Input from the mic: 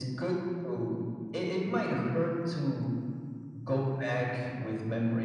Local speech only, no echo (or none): none